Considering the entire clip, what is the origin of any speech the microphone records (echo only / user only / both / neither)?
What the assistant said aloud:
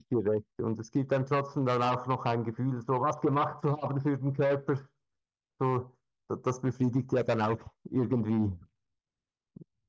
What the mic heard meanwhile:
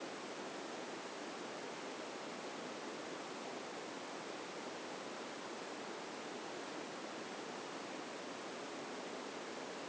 neither